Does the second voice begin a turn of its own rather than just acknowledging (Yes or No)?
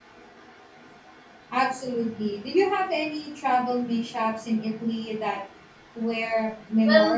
Yes